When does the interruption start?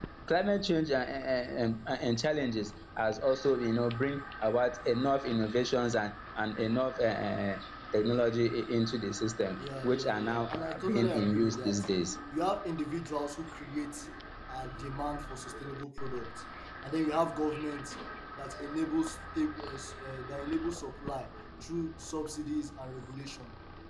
10 s

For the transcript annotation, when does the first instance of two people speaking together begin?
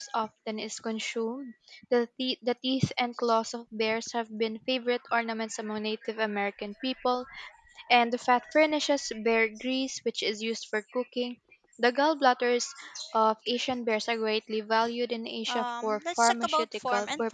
15 s

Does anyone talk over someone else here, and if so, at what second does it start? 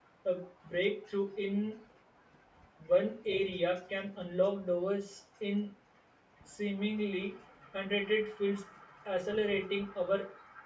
none

